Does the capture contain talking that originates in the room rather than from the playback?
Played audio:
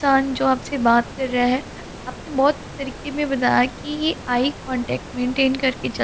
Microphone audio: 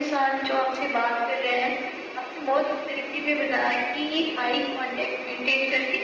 No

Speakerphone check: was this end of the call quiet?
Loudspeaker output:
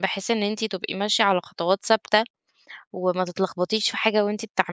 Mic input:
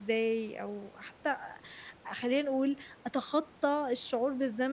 No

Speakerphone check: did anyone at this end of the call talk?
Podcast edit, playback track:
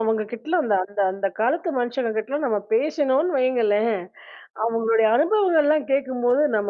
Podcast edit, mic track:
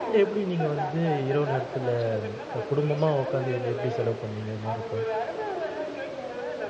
Yes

